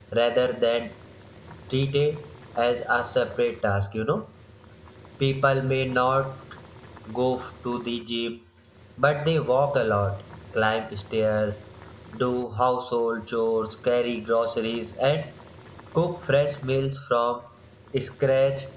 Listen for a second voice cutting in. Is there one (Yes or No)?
No